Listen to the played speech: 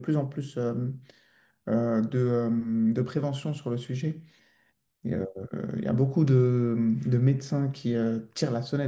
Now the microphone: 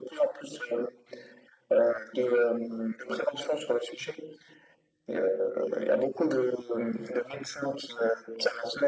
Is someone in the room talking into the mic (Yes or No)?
No